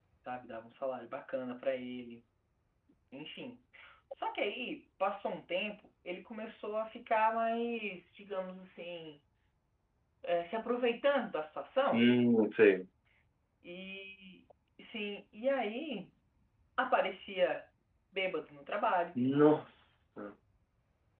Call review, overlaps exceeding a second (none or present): none